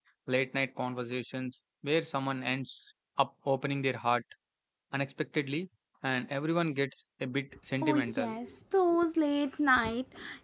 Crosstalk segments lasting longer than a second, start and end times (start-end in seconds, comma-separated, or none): none